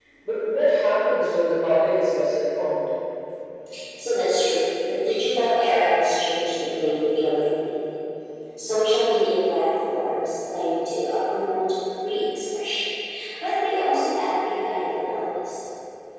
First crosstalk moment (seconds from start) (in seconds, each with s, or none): none